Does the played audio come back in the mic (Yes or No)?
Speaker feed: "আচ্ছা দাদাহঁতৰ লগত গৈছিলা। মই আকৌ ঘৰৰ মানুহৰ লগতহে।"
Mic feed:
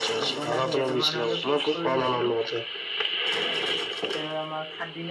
Yes